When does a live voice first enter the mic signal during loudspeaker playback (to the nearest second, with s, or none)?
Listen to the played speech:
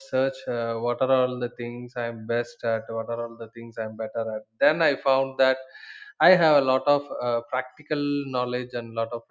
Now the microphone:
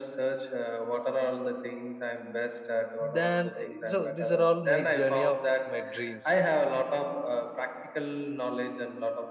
3 s